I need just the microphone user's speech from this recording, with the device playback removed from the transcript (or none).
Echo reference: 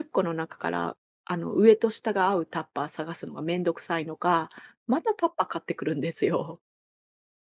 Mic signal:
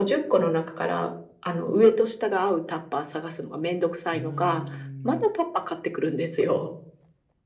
うーん。